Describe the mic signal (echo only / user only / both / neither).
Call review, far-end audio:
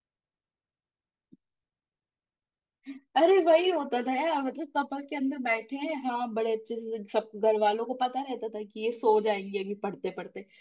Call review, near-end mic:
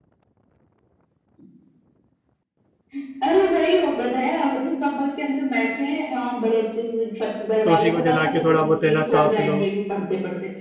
both